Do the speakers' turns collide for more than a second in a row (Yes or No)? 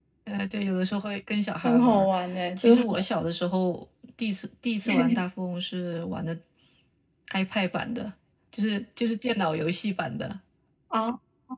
No